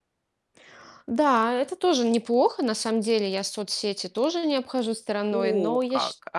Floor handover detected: Yes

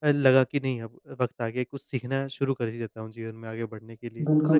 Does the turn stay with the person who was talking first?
No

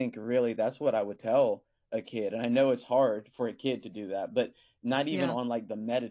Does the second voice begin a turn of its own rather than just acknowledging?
No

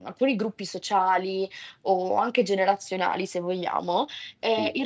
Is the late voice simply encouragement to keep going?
Yes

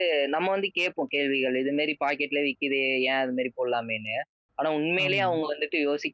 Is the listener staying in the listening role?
Yes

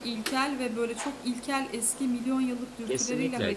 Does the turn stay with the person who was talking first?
No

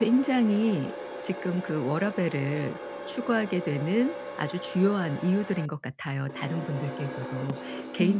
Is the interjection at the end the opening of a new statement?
No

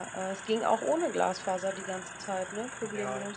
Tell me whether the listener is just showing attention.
No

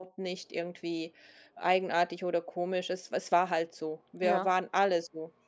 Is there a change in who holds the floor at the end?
No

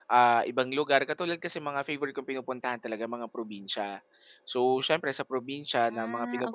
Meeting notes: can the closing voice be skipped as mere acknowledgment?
Yes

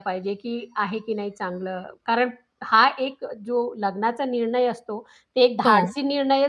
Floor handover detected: No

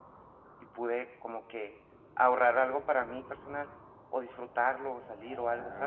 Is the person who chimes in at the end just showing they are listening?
No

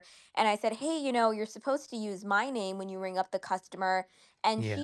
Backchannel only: Yes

